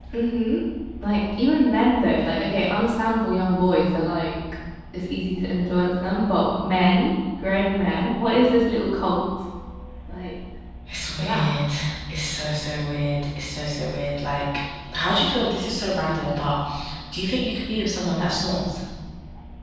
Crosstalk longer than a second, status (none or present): none